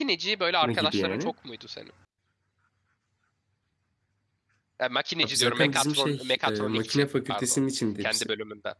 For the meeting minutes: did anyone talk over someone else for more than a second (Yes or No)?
Yes